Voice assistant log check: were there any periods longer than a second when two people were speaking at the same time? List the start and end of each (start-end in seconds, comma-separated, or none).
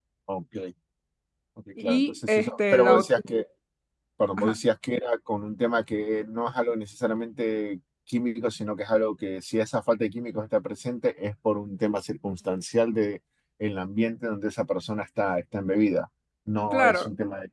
1.8-3.1